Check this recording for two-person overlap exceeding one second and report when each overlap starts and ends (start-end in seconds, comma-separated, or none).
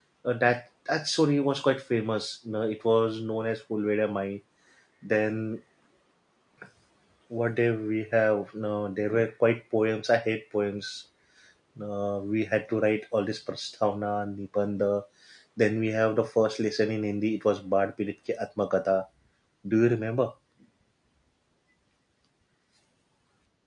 none